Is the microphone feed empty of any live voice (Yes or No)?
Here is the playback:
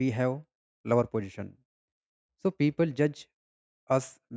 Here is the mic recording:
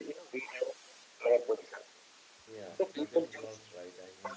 No